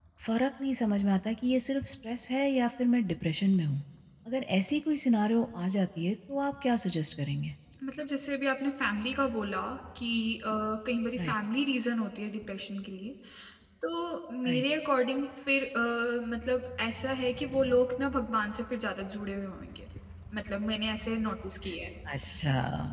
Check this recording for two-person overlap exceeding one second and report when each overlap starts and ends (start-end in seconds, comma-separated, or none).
none